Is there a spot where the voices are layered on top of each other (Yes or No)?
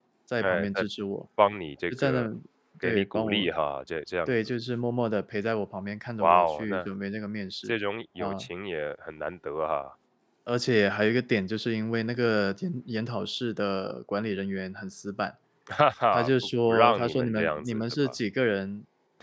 Yes